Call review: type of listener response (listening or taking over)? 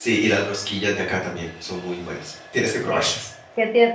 taking over